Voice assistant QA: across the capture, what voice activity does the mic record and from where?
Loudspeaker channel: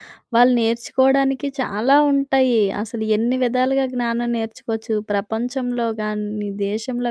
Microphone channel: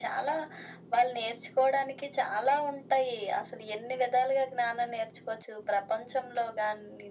echo only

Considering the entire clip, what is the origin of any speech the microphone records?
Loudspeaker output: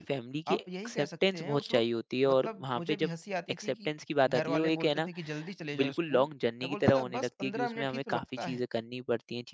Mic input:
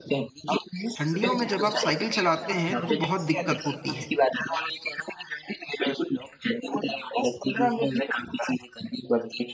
both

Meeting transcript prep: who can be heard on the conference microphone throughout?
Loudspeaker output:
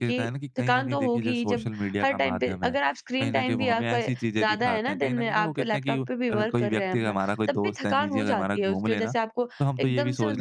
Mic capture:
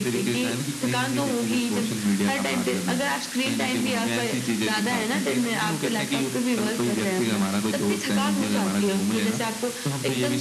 echo only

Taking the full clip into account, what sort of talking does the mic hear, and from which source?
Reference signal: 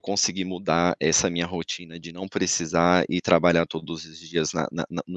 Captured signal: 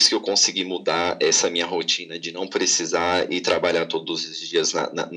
echo only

